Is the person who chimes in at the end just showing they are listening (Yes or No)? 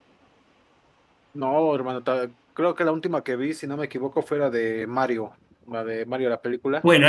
No